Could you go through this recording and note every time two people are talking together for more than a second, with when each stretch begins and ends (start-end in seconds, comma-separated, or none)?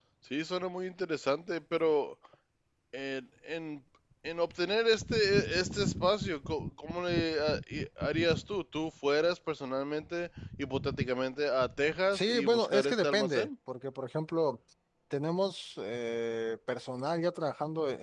12.1-13.5